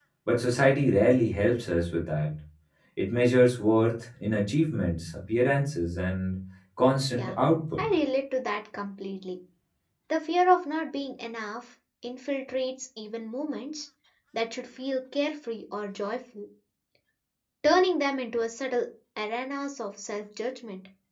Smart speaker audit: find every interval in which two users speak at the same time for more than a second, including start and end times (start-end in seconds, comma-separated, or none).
none